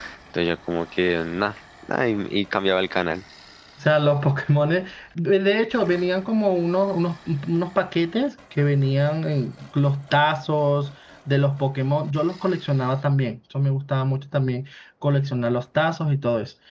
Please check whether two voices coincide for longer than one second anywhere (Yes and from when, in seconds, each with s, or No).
No